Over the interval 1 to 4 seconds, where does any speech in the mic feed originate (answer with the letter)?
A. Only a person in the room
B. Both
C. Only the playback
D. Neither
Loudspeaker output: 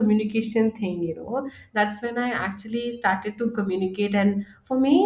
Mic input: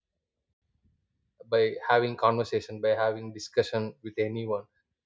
A